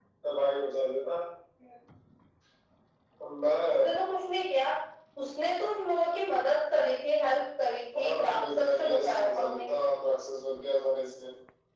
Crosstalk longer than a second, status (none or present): present